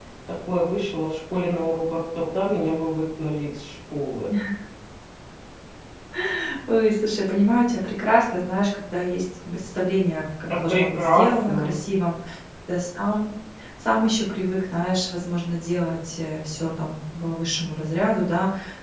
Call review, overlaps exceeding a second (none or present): present